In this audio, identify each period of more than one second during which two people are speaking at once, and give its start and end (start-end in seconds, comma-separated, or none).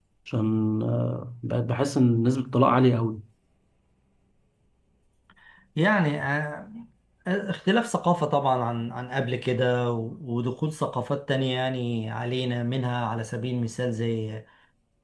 none